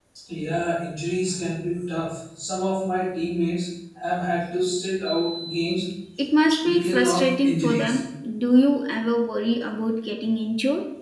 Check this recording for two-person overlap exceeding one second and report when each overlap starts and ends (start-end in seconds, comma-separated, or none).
6.7-8.0